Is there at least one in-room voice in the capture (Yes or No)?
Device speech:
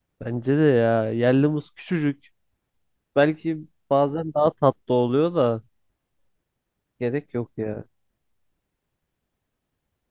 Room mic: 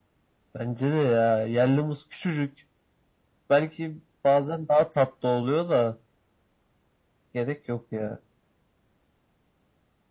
No